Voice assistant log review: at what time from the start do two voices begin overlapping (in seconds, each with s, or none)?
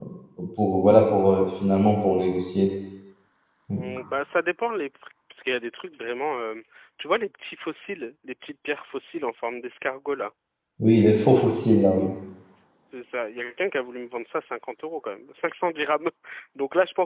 none